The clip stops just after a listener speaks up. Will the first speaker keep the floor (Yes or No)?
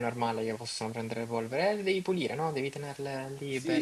No